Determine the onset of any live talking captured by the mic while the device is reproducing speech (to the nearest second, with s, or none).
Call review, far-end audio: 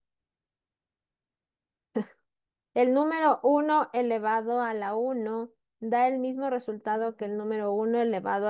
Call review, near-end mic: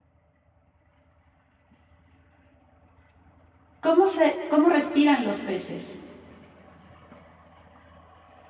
4 s